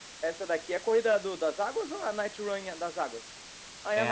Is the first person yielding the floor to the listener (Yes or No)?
Yes